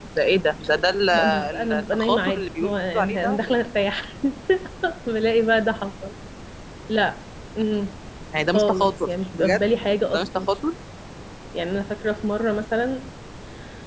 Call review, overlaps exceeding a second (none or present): present